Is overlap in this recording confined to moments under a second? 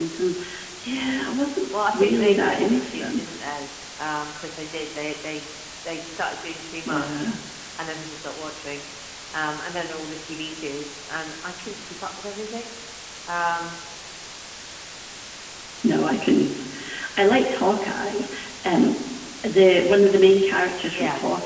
No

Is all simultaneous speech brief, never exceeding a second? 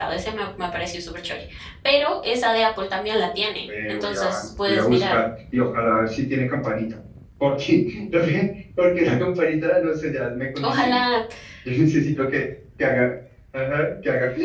No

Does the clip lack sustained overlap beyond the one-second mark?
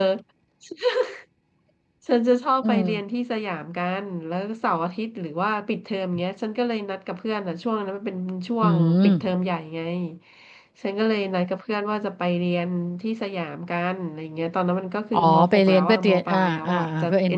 No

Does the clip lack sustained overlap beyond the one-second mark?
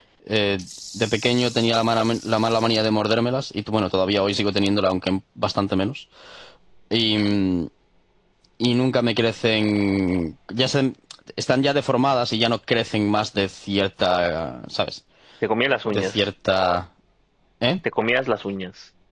Yes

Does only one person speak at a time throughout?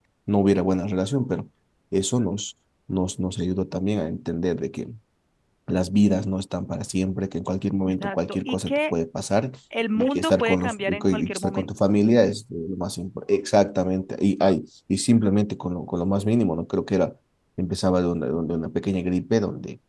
No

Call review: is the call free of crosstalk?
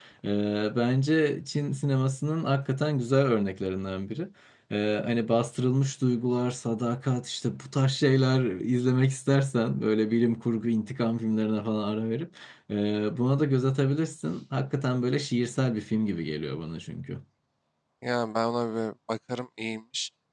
Yes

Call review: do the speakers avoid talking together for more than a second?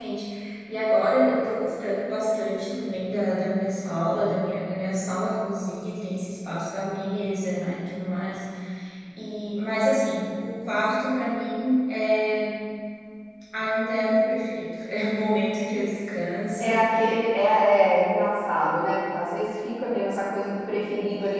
Yes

